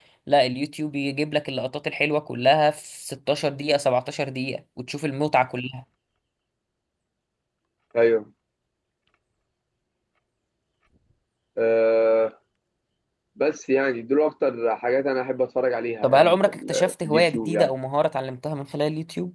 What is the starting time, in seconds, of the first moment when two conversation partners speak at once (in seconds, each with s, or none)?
16.0 s